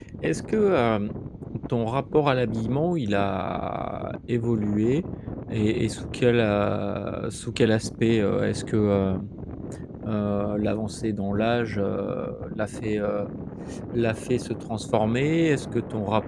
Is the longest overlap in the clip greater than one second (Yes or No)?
No